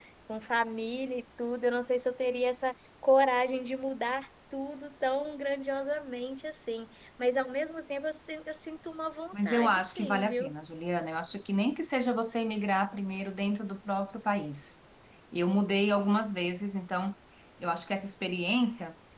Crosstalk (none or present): present